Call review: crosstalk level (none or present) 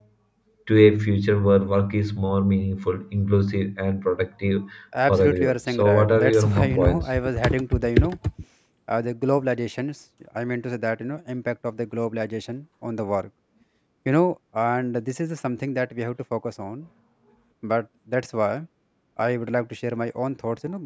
present